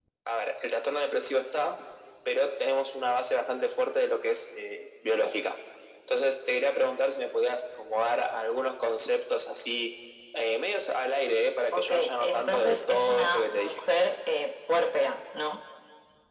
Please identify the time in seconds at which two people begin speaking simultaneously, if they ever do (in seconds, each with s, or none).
11.7 s